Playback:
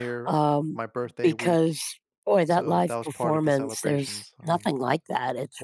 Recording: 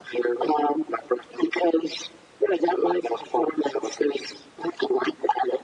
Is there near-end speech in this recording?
No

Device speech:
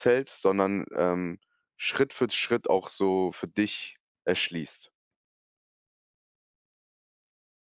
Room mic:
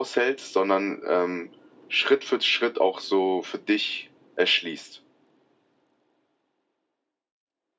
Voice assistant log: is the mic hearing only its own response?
Yes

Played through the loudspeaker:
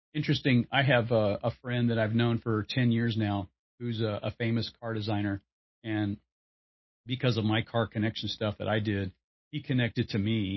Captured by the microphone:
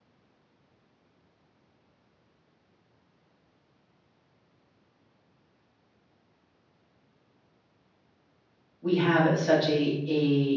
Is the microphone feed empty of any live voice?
No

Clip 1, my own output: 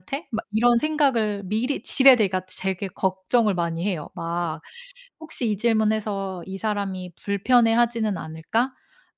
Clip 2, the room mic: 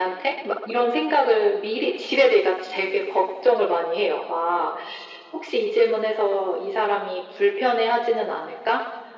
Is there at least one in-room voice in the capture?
No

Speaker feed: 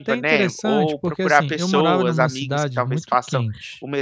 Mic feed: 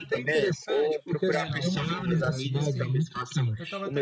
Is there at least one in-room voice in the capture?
Yes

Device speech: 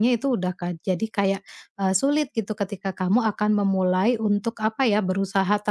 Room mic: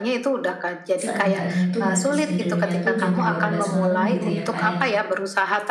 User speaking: Yes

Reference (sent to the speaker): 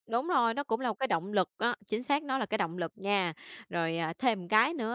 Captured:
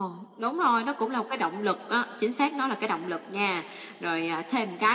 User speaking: No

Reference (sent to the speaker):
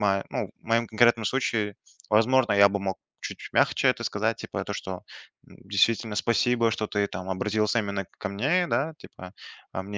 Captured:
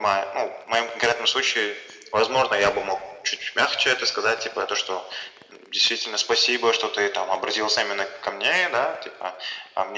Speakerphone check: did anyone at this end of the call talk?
No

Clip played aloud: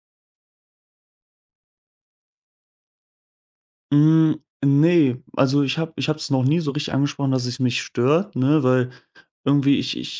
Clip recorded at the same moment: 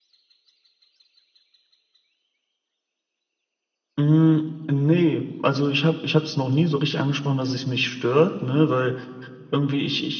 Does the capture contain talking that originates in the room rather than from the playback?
No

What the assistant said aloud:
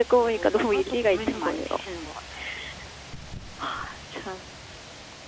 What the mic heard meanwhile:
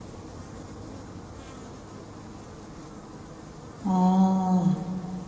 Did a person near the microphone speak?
Yes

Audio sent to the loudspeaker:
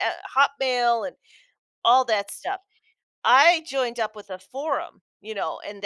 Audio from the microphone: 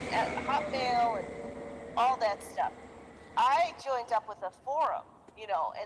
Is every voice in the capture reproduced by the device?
Yes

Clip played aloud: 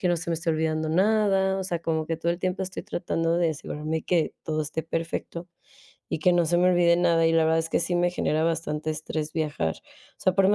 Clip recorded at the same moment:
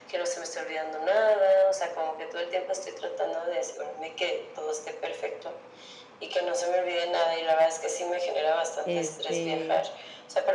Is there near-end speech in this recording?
Yes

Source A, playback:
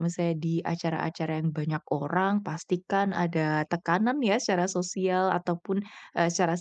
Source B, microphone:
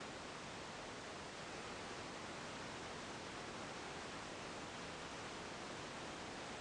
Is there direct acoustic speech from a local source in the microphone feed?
No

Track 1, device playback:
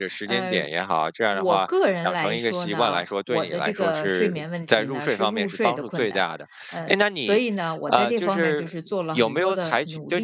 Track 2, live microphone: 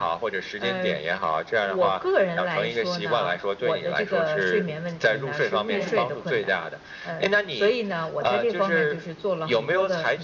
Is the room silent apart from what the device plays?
No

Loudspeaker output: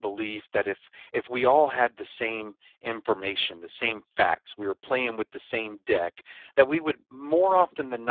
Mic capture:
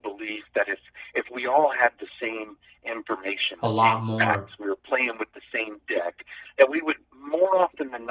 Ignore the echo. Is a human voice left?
Yes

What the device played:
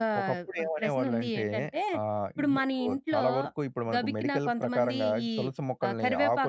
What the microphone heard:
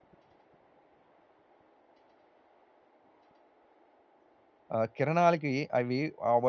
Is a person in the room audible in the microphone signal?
Yes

